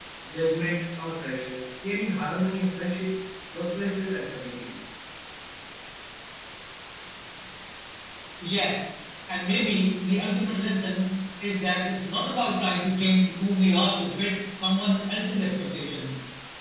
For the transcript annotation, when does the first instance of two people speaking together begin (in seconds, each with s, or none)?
none